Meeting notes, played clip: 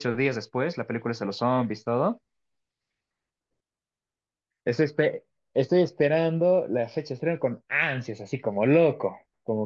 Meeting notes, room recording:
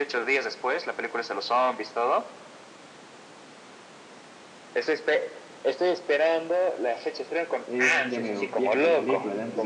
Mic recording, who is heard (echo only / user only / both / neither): both